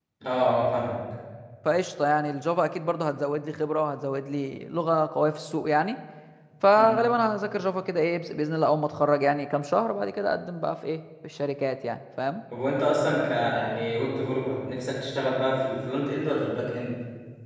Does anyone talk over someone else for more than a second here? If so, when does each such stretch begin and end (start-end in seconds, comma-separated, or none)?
none